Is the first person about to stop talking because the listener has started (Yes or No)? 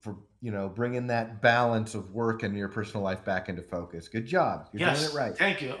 Yes